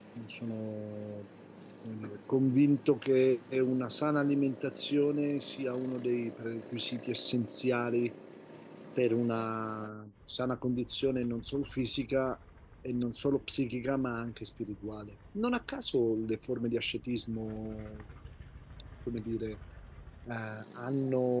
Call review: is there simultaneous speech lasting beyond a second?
No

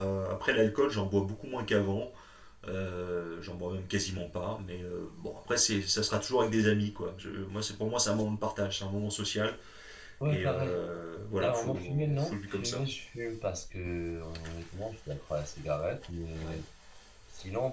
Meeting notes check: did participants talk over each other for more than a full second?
Yes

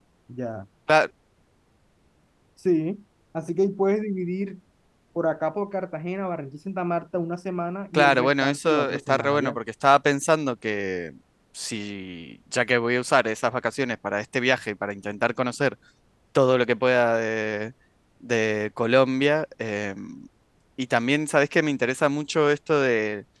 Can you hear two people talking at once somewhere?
Yes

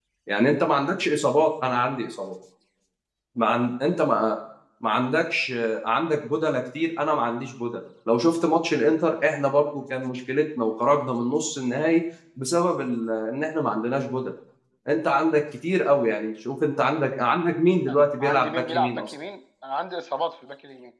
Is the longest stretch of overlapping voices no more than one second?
No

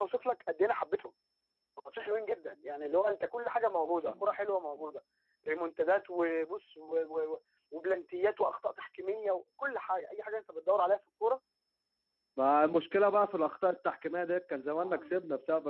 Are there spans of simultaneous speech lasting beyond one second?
No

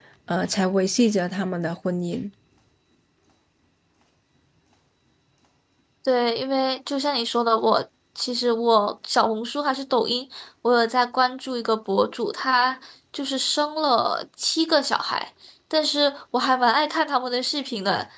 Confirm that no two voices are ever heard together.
Yes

